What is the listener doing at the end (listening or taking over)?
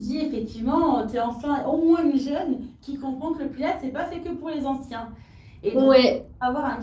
listening